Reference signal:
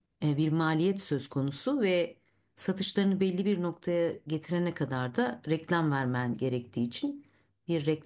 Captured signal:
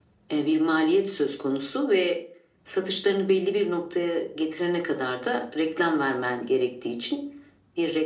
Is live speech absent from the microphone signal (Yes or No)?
Yes